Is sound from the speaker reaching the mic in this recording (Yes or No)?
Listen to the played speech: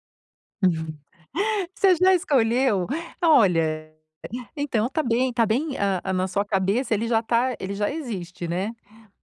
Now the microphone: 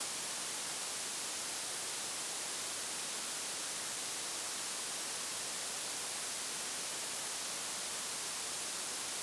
No